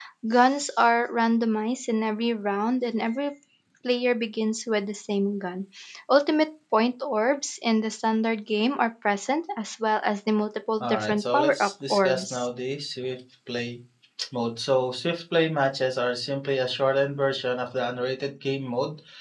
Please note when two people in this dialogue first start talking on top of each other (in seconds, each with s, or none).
10.8 s